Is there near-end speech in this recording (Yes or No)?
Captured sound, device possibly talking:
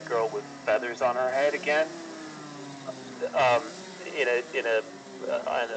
No